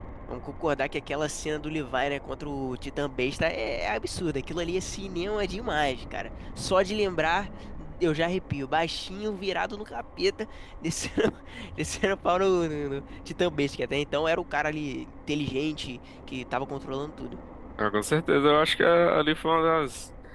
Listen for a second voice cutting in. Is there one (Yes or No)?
No